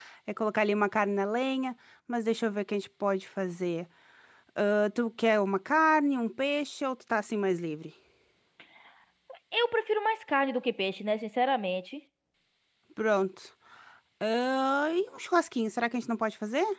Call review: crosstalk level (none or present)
none